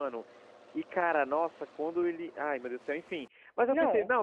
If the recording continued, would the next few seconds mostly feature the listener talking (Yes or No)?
No